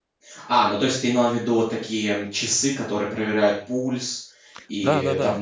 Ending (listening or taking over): taking over